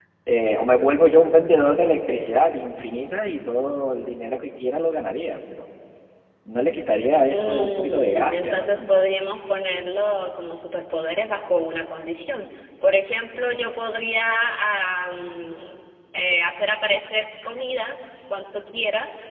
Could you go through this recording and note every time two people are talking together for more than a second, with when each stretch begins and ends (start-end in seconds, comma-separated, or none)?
7.3-9.1